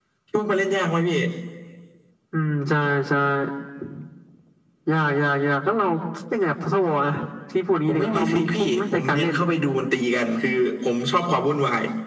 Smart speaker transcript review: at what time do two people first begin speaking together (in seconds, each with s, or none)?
7.9 s